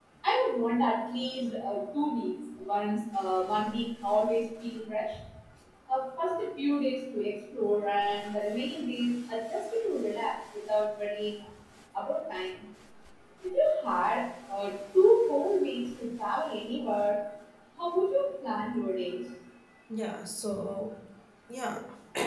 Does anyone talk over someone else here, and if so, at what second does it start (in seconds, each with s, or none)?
none